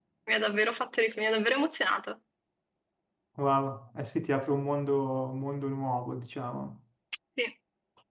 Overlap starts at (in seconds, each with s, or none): none